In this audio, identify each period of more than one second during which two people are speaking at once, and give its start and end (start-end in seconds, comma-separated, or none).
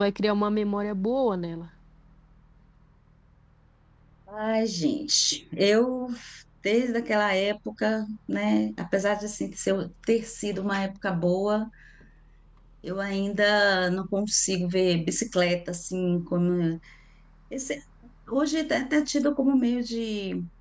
none